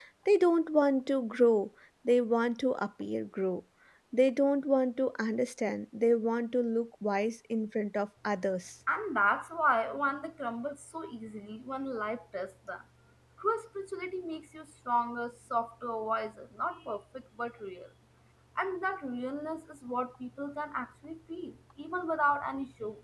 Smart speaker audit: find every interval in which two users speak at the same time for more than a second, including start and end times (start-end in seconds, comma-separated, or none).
none